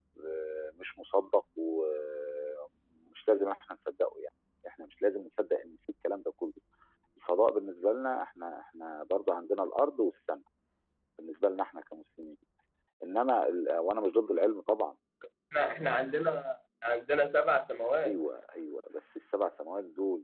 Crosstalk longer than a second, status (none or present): none